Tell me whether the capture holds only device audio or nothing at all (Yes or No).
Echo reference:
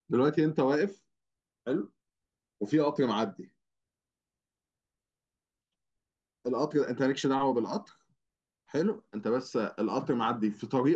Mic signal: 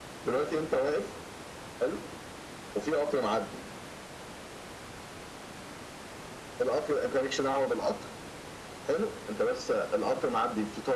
Yes